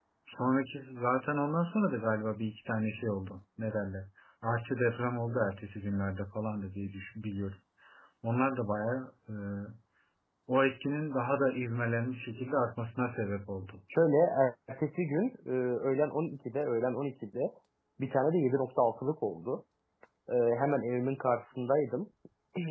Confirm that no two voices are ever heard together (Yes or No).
Yes